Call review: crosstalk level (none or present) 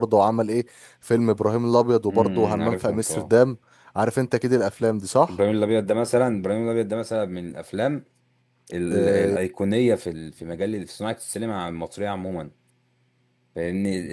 present